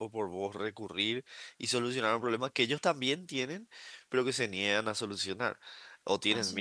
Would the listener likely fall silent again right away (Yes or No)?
Yes